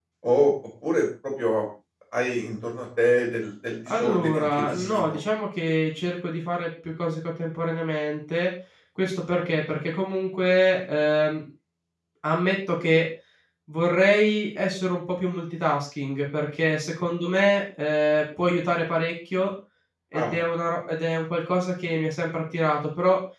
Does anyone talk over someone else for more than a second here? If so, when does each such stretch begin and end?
3.9-5.2

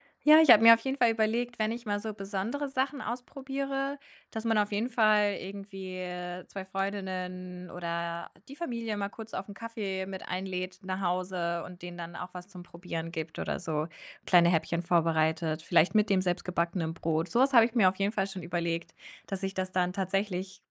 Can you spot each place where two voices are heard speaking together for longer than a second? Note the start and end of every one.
none

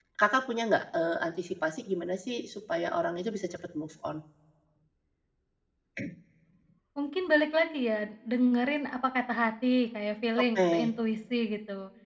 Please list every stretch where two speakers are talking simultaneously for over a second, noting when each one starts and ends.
none

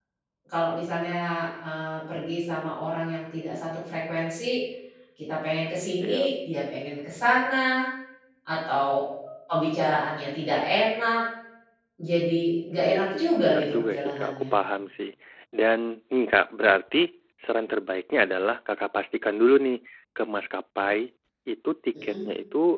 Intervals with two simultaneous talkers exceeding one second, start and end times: 12.8-14.4

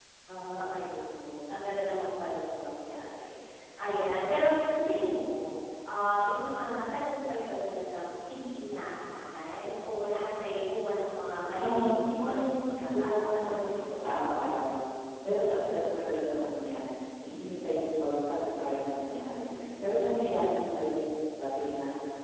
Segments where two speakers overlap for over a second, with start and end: 11.6-13.6

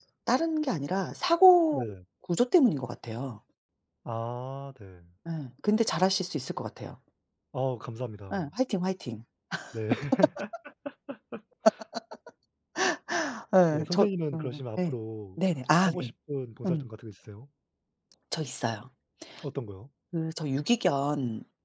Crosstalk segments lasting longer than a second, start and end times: 13.7-14.9

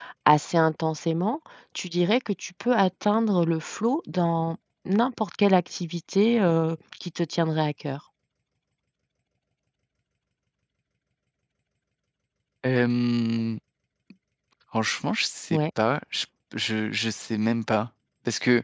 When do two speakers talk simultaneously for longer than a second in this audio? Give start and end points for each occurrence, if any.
none

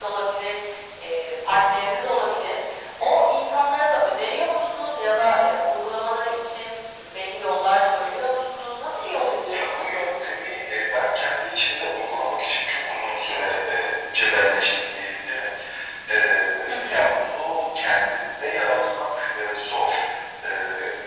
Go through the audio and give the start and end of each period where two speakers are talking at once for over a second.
none

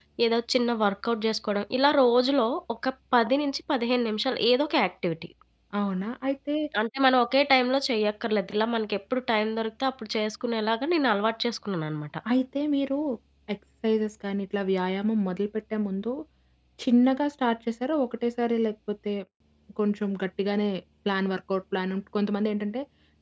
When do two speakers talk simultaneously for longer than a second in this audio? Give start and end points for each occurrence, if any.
none

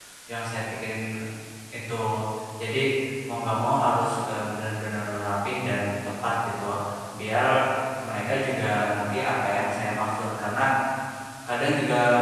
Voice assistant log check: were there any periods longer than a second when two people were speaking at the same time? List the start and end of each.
none

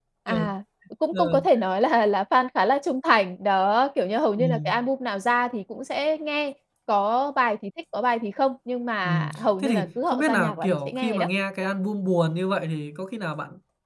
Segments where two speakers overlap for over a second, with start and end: 9.0-11.3

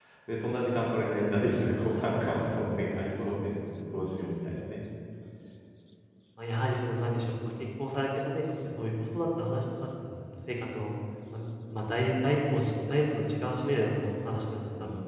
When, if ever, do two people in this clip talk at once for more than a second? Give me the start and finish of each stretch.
none

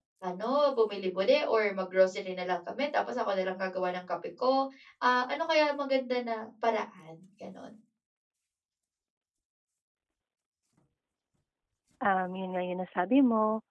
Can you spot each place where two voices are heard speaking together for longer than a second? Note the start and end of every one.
none

